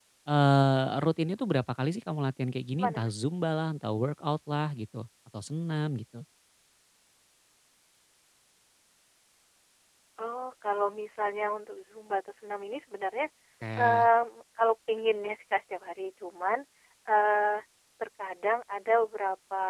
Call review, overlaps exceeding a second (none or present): none